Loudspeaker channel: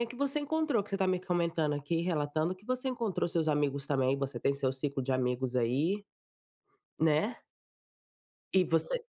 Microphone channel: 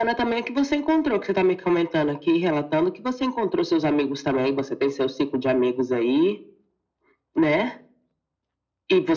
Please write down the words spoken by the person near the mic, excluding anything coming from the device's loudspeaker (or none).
none